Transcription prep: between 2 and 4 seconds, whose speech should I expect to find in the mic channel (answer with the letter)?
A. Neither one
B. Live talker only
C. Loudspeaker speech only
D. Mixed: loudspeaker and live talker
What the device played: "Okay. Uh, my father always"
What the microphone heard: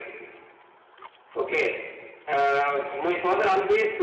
C